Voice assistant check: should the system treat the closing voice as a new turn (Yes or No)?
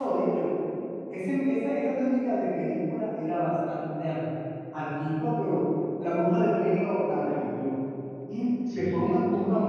No